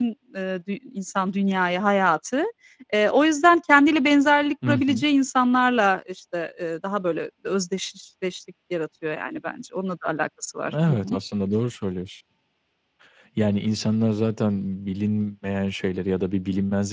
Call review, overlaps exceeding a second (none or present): none